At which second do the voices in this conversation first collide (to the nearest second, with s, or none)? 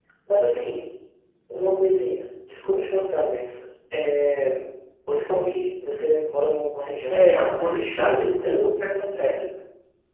7 s